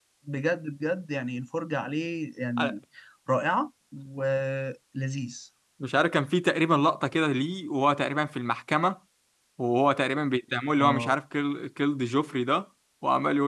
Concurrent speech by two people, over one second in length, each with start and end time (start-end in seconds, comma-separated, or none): none